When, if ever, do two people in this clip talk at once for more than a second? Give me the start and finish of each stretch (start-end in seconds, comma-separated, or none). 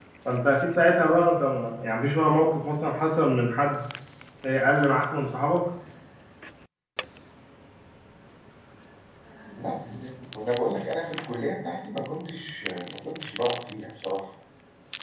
none